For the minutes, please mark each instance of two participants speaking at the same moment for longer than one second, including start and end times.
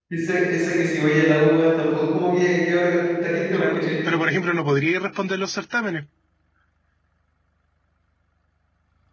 none

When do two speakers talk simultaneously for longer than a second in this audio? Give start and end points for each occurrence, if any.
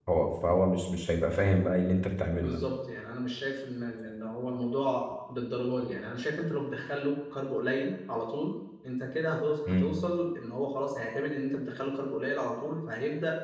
none

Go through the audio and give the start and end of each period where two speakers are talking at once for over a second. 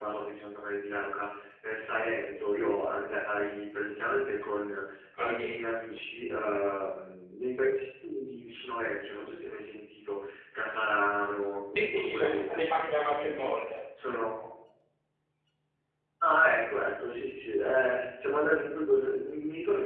11.7-13.5

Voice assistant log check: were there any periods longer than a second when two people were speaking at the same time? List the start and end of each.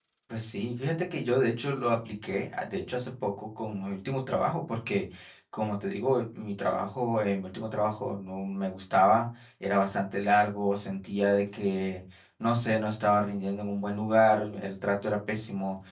none

